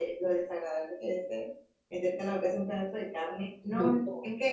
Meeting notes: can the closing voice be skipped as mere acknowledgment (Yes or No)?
Yes